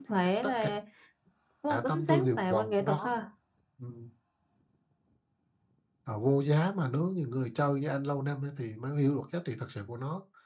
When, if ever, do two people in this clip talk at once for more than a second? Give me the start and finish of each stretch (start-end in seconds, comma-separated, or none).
1.9-3.2